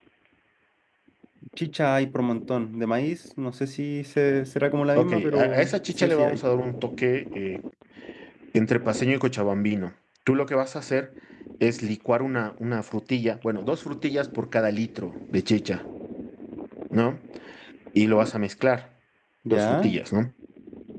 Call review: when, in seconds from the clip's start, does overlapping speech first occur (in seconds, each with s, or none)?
5.0 s